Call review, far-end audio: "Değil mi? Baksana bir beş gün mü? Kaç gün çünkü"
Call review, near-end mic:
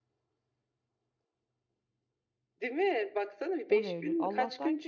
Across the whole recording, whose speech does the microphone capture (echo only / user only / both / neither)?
both